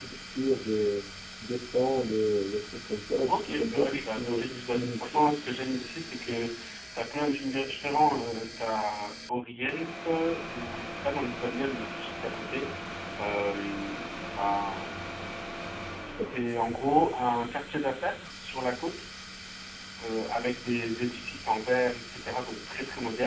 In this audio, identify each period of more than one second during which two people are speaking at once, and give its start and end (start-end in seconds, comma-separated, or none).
3.3-5.2